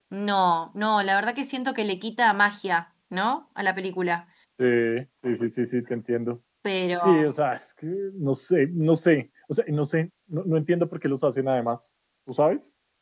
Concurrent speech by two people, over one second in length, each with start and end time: none

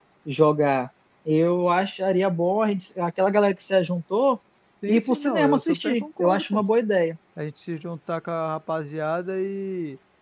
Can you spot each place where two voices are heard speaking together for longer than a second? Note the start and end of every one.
4.9-6.6

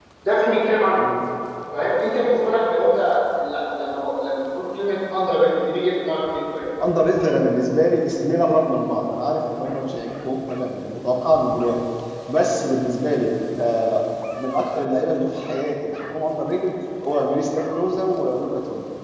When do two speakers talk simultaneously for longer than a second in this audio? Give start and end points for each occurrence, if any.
none

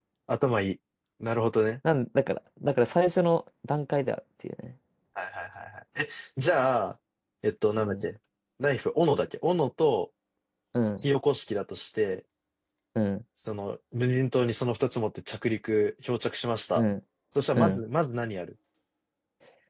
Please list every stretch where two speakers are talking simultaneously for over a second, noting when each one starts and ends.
none

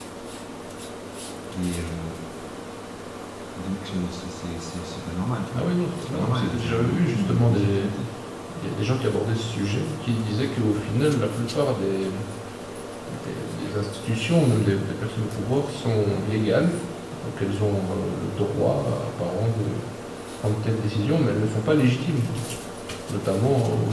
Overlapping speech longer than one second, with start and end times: 6.1-7.9

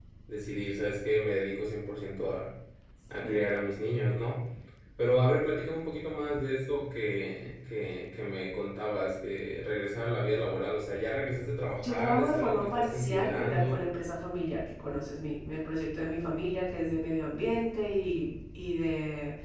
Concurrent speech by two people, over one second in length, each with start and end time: 11.8-13.9

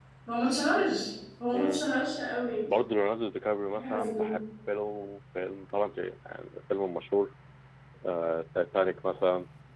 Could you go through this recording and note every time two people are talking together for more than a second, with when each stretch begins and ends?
none

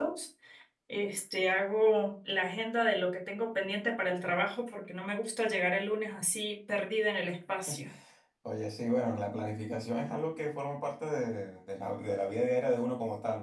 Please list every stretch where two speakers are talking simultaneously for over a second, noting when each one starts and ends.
none

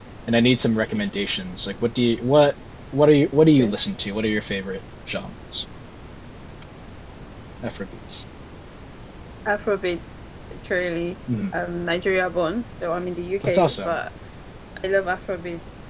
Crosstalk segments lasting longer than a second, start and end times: none

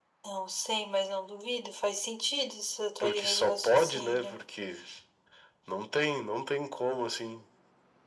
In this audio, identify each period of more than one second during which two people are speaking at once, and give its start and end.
3.0-4.4

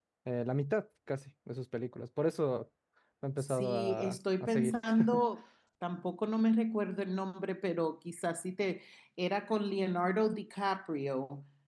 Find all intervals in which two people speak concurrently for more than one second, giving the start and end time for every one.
3.4-4.7

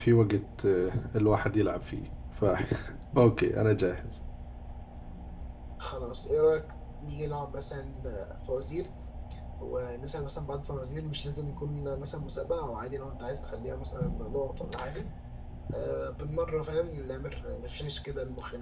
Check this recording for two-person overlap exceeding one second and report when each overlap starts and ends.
none

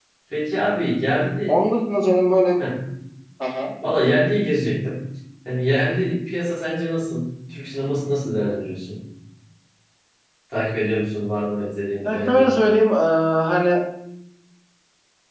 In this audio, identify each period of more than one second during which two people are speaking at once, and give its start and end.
none

